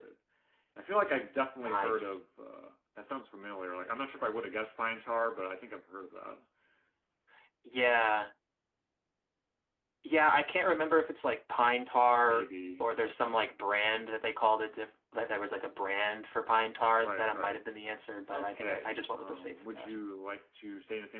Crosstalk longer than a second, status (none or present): present